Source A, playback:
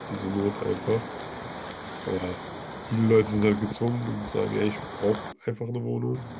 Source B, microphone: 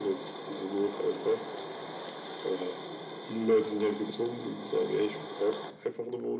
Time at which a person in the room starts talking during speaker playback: none

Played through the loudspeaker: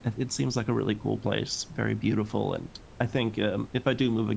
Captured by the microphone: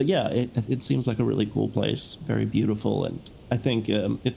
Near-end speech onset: none

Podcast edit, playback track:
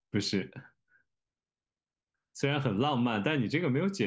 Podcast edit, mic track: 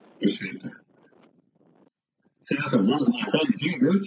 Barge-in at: none

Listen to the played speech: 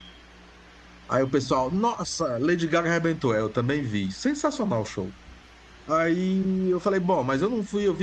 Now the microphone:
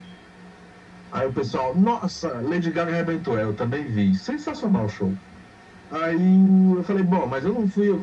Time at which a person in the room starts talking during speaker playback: none

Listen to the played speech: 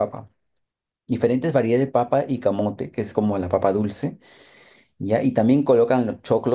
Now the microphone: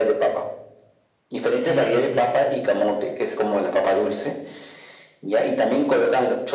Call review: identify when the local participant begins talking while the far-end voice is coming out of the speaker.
1.6 s

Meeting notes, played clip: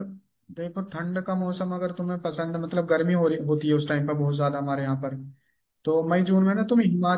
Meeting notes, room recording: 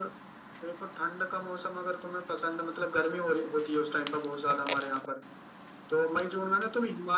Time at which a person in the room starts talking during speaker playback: none

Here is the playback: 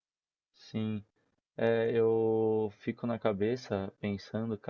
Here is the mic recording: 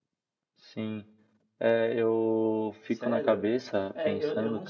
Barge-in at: 2.9 s

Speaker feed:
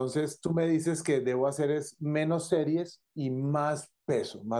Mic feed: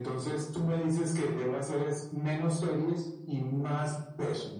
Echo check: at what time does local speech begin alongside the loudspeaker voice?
none

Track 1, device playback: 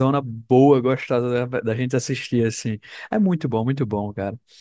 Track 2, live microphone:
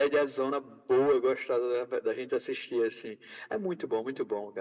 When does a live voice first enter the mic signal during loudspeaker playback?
none

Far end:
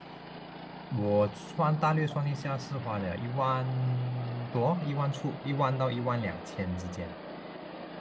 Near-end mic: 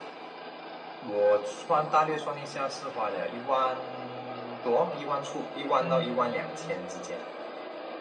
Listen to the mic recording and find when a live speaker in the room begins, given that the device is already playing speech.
5.8 s

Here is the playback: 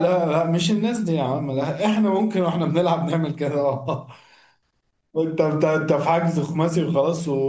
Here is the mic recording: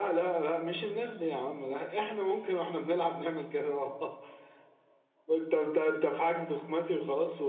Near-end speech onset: none

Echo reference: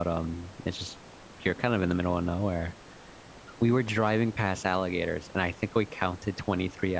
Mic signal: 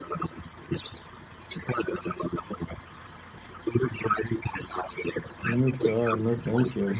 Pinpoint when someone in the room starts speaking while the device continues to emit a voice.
5.4 s

